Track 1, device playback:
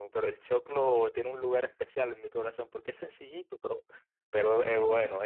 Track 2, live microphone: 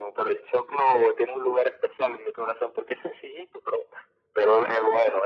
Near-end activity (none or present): none